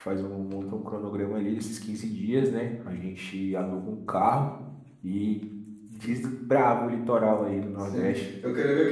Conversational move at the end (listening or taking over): taking over